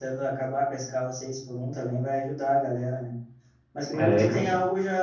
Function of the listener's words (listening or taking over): listening